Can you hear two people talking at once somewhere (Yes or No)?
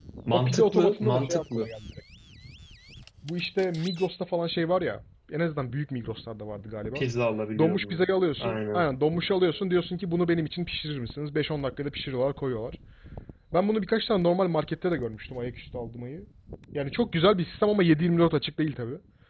Yes